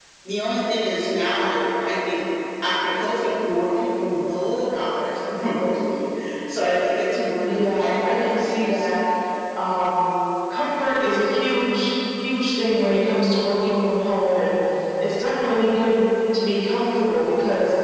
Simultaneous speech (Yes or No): Yes